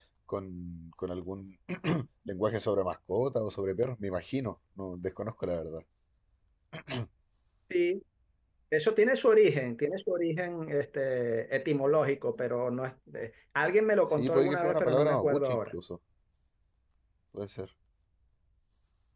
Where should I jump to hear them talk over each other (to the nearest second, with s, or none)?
14 s